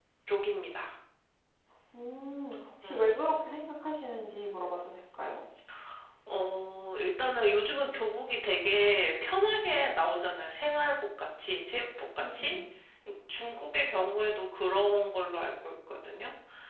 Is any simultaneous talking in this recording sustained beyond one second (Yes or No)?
No